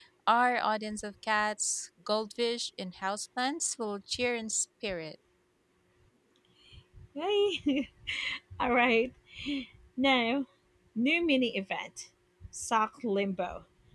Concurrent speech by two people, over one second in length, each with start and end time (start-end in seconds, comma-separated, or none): none